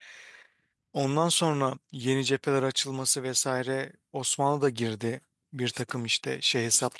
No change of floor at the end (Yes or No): No